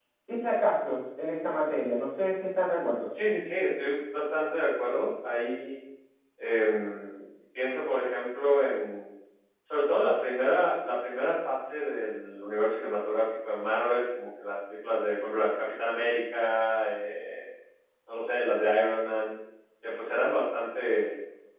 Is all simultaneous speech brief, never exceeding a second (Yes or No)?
Yes